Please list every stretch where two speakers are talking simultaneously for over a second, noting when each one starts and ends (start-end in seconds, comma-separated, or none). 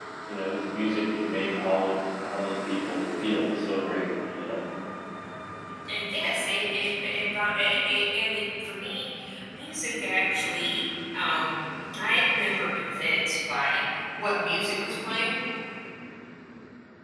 none